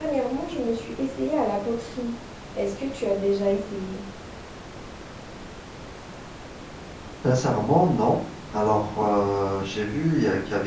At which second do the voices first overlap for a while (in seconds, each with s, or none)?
none